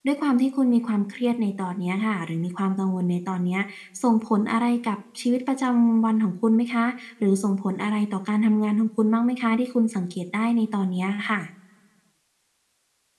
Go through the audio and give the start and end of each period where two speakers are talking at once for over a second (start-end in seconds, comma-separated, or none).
none